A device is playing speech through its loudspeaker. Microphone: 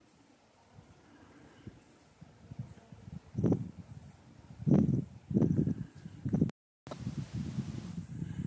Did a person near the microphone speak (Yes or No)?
No